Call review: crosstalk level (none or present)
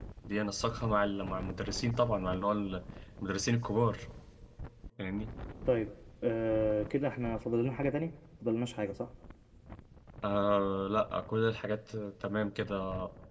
none